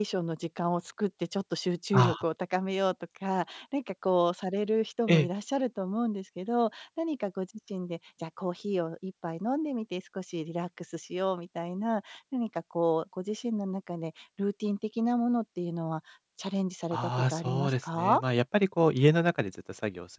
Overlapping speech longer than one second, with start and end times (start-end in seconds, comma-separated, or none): 16.9-18.2